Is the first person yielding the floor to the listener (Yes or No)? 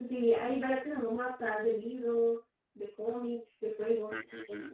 Yes